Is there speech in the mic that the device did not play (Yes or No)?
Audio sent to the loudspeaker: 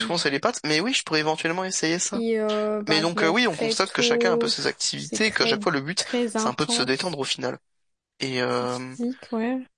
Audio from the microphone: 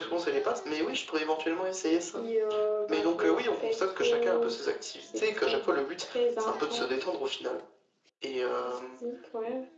No